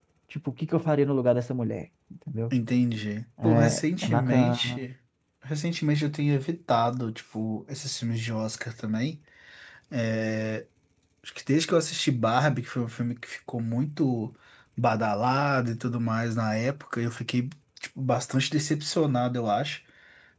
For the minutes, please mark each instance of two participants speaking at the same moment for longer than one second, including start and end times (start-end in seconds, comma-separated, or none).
3.4-4.8